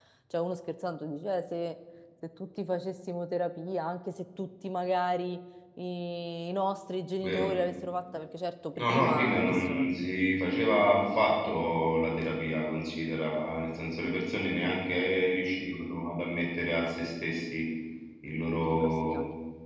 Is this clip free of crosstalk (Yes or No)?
No